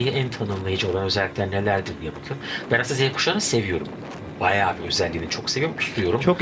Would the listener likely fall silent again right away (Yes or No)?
No